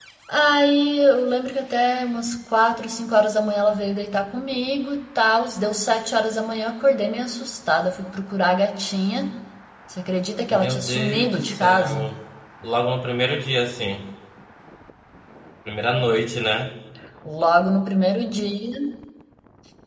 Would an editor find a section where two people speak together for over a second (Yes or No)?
Yes